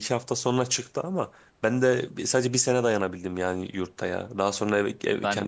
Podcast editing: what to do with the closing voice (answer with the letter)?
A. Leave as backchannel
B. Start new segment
A